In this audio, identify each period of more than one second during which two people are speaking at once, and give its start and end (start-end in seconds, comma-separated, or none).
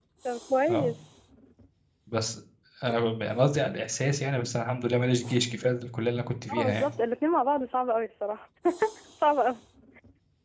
none